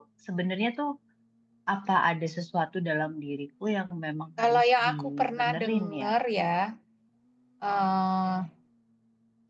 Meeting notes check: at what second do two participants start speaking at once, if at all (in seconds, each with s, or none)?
4.4 s